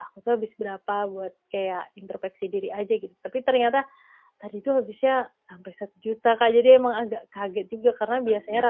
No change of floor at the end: Yes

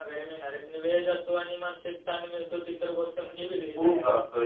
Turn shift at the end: Yes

